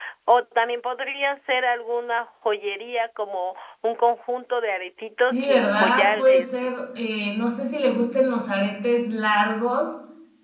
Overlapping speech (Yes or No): Yes